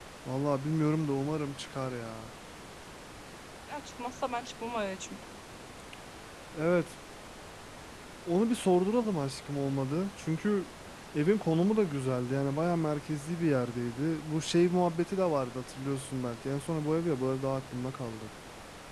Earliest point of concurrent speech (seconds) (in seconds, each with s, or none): none